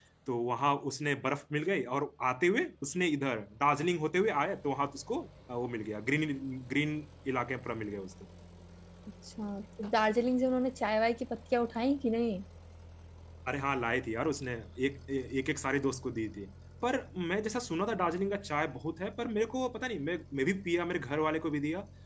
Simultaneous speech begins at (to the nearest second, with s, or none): none